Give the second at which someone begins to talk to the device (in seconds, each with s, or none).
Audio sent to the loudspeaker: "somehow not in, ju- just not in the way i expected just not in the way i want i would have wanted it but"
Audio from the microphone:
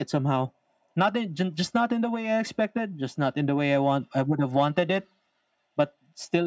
none